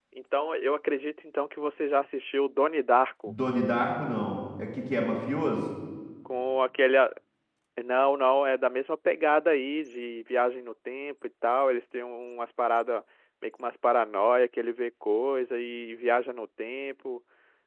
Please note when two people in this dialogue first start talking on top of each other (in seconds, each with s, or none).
none